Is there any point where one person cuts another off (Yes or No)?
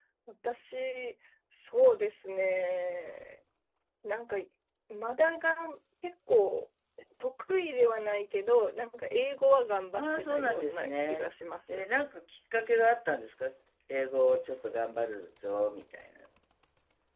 Yes